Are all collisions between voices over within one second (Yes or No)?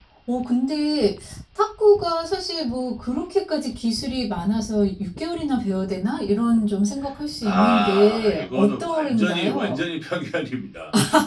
No